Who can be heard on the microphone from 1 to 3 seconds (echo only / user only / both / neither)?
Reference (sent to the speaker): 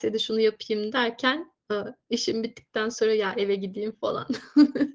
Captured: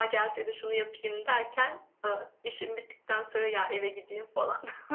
echo only